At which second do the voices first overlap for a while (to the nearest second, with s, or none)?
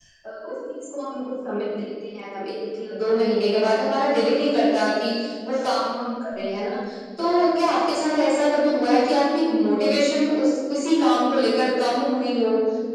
none